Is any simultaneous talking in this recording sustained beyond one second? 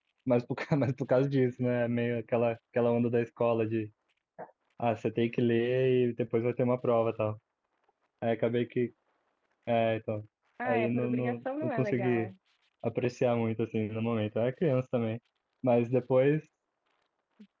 Yes, from 10.6 s

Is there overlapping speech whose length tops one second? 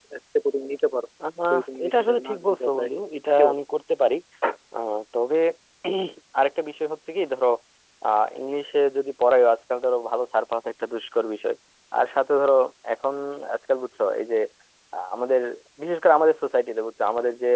Yes, from 1.5 s

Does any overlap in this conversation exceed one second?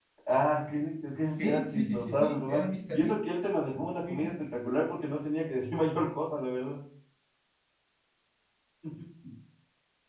Yes, from 1.3 s

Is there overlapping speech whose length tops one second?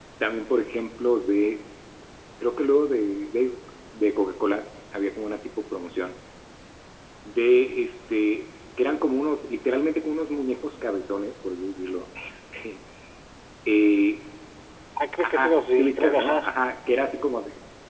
Yes, from 15.2 s

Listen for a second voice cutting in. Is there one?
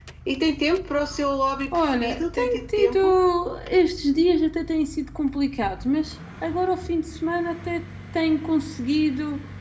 Yes, from 1.7 s

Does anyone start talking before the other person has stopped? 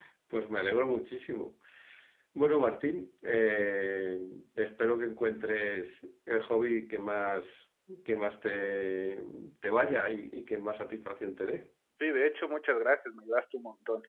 No

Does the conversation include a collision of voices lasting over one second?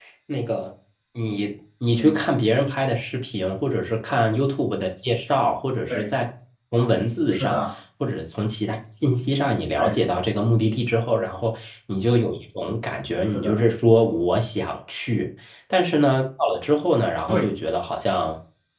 No

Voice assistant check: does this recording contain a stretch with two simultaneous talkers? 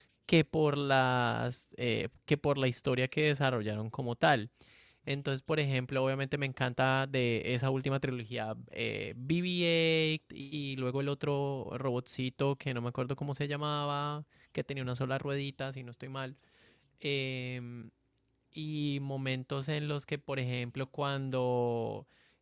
No

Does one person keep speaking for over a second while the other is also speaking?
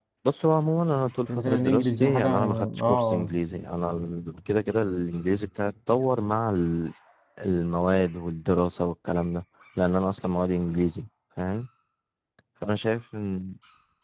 Yes, from 1.3 s

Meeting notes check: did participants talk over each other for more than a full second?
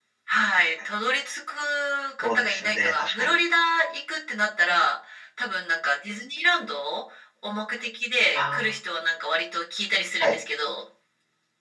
Yes, from 2.2 s

